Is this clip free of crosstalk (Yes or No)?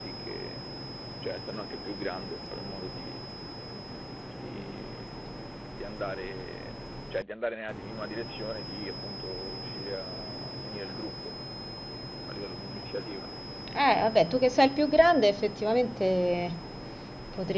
Yes